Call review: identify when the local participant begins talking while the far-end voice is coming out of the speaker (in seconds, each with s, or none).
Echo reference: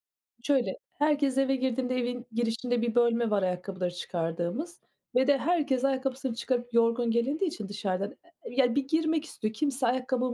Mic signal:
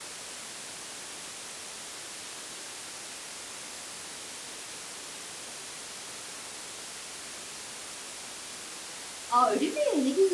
9.3 s